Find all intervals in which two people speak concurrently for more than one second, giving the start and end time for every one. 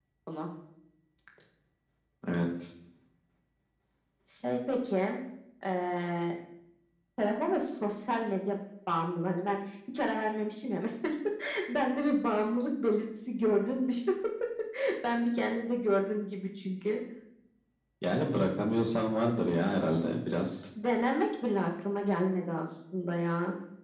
none

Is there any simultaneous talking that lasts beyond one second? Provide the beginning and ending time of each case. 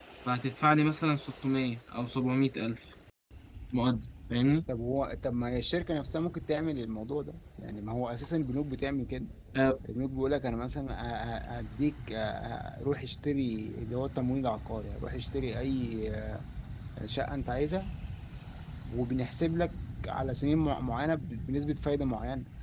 none

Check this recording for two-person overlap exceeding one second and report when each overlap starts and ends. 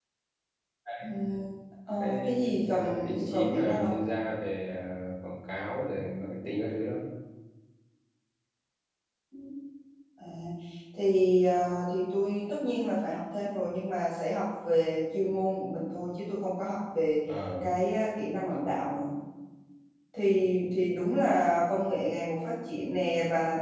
2.0-4.0

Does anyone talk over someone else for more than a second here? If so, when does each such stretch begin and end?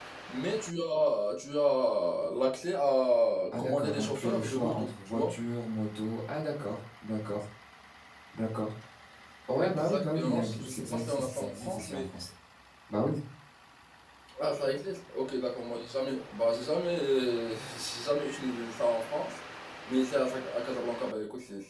3.6-5.3, 9.6-12.0

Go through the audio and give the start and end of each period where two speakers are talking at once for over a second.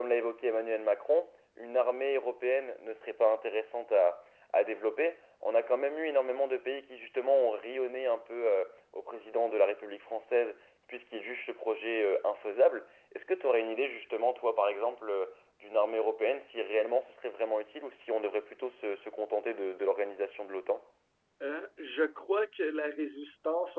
none

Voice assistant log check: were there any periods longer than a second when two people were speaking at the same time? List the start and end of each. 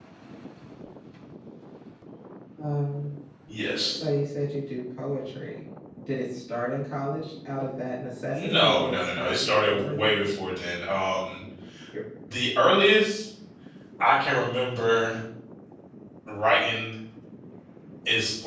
8.3-10.3

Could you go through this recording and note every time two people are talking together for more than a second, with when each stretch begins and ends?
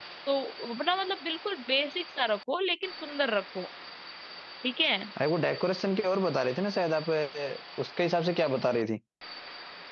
none

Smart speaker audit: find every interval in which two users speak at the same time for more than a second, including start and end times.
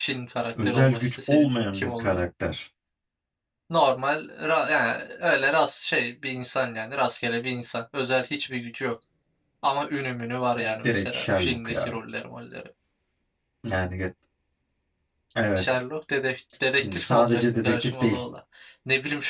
0.6-2.2, 10.6-11.9, 16.7-18.2

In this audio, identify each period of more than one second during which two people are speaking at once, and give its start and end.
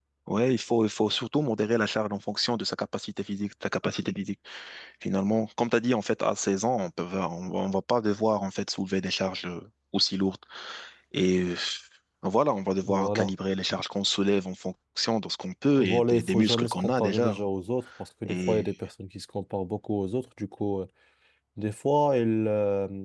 15.8-17.5

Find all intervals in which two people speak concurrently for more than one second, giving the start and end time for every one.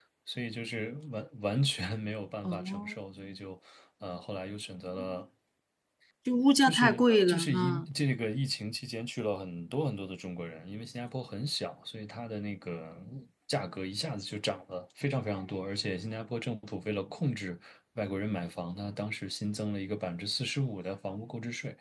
6.6-7.9

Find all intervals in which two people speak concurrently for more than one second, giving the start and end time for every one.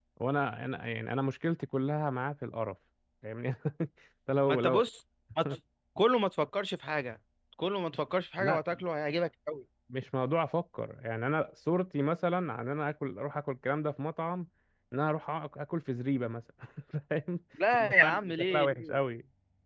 17.7-19.0

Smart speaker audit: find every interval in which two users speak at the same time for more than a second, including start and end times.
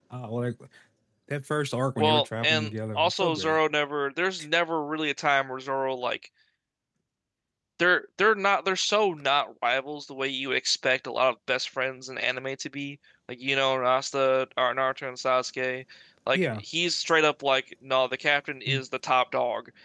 2.0-3.6

